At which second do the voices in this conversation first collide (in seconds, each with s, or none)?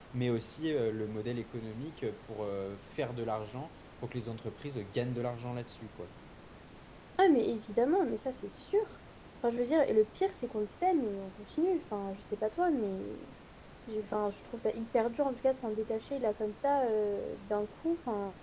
none